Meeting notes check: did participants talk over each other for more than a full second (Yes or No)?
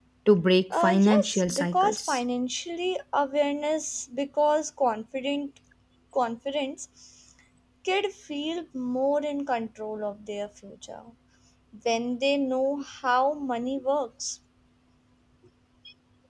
Yes